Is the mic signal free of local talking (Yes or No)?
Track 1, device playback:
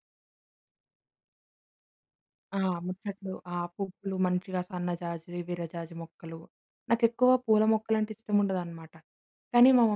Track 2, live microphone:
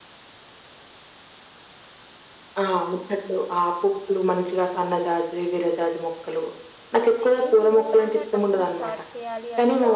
No